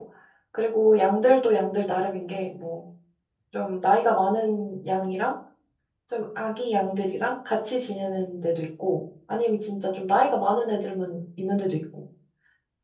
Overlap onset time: none

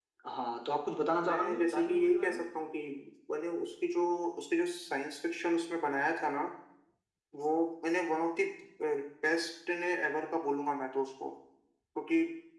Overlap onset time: 0.9 s

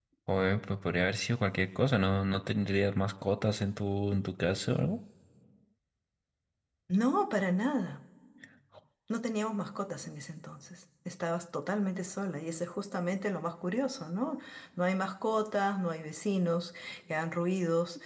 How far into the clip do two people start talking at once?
none

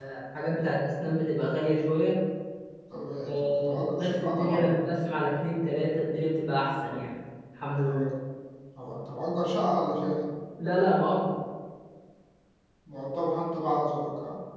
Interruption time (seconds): 3.3 s

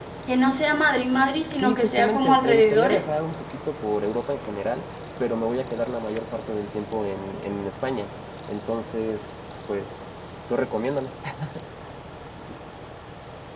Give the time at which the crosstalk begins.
1.6 s

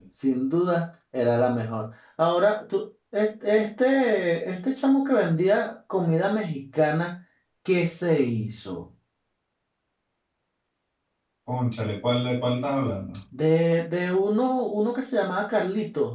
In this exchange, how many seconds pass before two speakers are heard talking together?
none

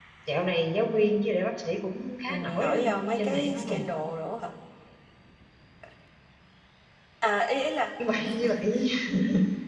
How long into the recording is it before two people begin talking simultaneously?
2.3 s

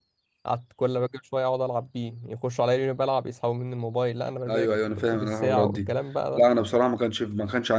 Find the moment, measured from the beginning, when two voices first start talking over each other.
4.5 s

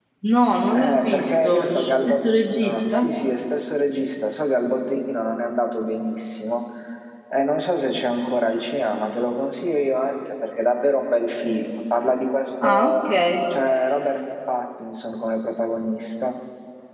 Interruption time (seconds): 0.7 s

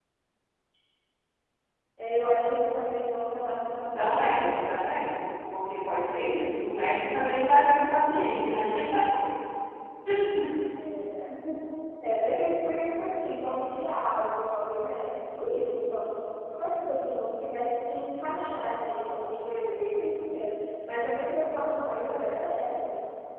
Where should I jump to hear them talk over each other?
4.0 s

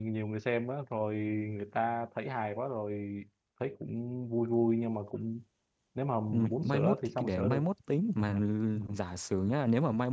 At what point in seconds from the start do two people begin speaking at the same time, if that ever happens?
6.3 s

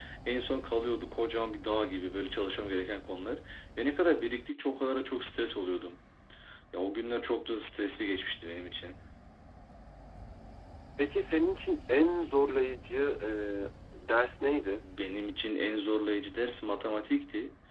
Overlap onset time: none

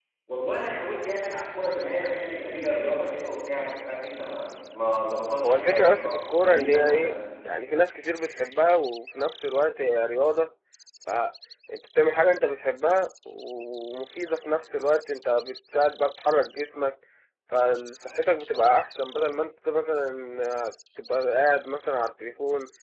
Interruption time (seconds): 5.4 s

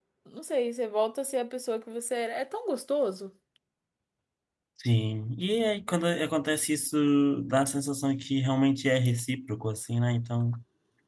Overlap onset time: none

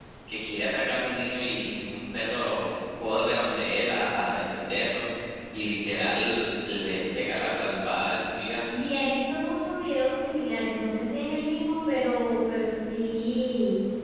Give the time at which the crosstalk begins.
none

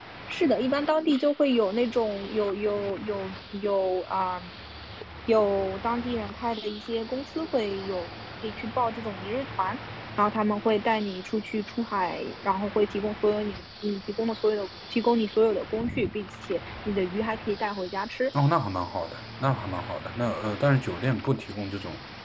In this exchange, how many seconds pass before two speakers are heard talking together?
none

